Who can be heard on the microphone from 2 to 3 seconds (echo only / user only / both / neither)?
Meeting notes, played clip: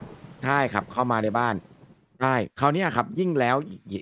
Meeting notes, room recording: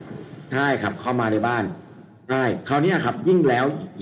echo only